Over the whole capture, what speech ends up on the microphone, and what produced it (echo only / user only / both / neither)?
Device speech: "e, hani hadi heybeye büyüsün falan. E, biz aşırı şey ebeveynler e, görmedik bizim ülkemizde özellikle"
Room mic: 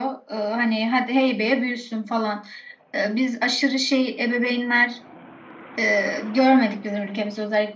echo only